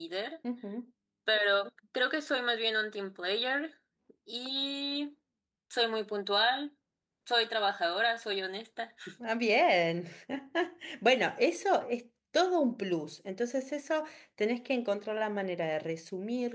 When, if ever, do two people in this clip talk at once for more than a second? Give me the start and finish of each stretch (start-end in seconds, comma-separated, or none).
none